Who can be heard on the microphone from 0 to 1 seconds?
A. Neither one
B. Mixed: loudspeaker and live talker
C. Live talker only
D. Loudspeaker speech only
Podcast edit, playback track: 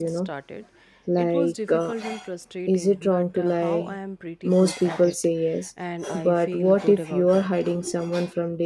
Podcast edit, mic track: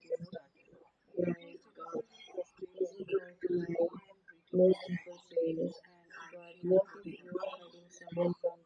D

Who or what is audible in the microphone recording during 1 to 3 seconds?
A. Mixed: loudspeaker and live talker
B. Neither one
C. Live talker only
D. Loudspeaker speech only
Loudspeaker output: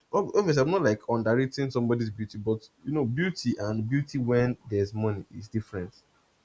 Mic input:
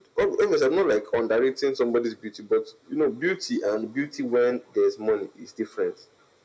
D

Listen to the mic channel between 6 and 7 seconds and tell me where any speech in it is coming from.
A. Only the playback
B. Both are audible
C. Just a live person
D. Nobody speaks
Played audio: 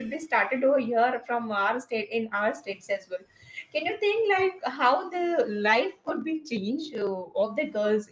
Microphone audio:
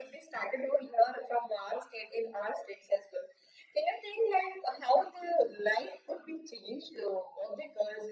A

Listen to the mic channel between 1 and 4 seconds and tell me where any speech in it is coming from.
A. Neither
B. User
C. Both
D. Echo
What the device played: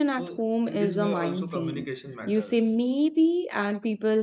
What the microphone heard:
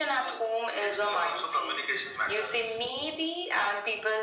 D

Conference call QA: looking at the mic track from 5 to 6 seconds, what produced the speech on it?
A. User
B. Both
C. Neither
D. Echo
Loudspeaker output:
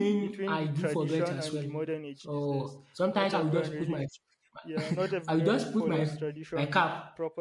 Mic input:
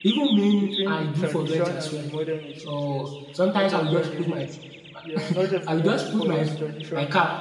D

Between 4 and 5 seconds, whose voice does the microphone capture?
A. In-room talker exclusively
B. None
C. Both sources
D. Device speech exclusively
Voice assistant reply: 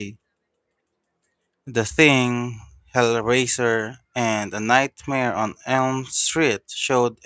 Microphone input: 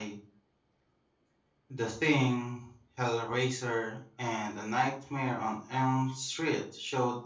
D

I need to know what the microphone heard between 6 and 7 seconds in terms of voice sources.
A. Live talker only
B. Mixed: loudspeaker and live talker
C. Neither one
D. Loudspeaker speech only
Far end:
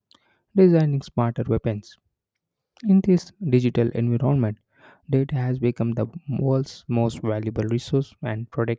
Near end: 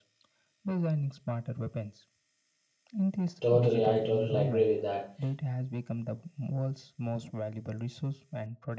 D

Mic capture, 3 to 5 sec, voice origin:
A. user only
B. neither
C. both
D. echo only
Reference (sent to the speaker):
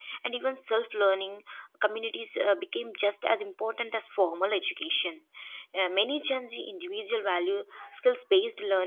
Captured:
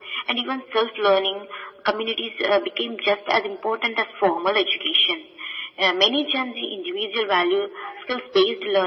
D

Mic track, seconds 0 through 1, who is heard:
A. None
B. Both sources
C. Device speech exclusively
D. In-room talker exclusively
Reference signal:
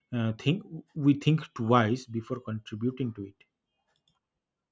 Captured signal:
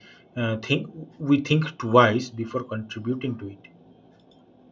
C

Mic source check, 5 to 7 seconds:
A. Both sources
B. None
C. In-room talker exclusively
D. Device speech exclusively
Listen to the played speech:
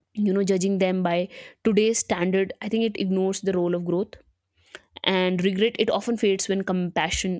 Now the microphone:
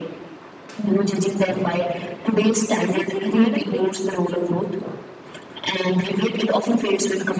D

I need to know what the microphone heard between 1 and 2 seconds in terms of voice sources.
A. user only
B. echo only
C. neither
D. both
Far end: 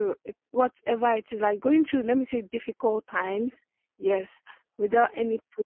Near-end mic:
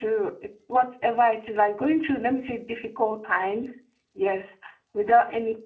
B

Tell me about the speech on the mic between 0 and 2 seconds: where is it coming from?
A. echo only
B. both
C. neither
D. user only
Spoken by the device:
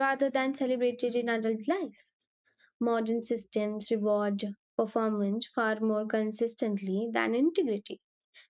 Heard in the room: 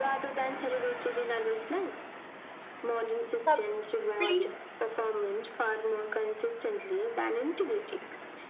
A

